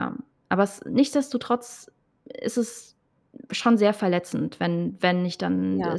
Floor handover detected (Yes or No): No